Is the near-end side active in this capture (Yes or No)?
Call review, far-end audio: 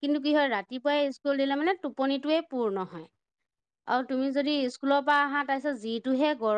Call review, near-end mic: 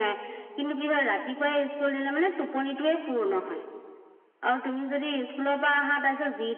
No